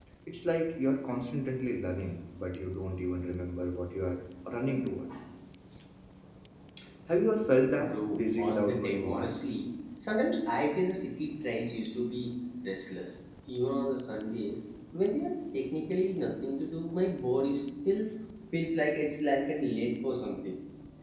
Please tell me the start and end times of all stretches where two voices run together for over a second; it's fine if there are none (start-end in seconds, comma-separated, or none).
7.8-9.3